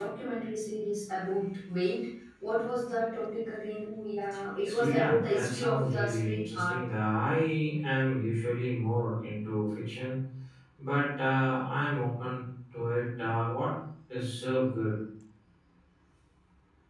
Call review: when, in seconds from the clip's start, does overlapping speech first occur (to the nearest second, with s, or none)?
5 s